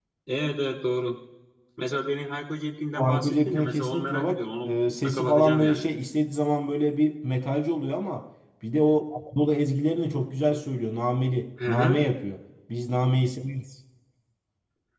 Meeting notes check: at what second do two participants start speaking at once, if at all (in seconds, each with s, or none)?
3.0 s